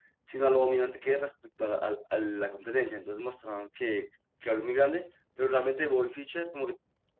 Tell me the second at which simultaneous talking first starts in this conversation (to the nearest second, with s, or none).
none